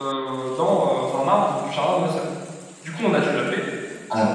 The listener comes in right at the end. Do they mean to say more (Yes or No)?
No